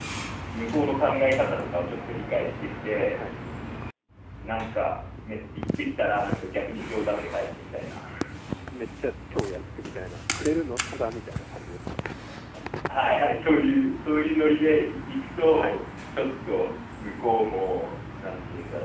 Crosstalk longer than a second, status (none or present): none